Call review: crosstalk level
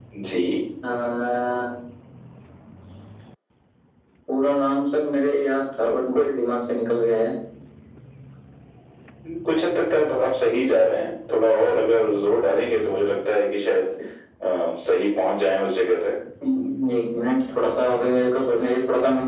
none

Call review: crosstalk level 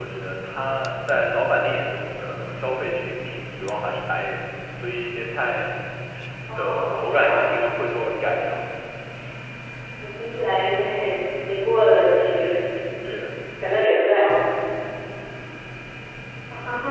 present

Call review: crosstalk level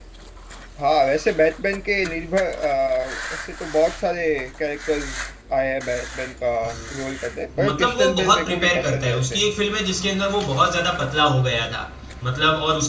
present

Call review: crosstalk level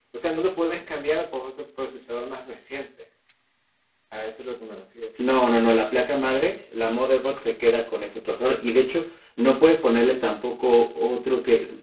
none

